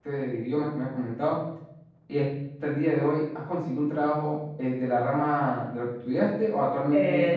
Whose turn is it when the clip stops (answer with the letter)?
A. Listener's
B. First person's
A